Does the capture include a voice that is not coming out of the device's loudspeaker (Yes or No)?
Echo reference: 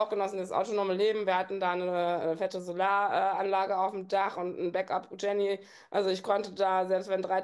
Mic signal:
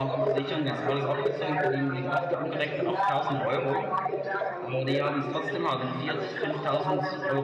Yes